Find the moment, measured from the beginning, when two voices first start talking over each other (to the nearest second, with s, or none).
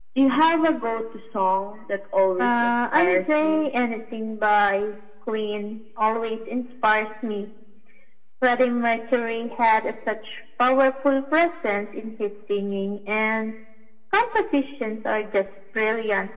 2 s